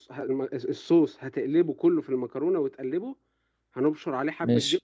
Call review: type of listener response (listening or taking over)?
listening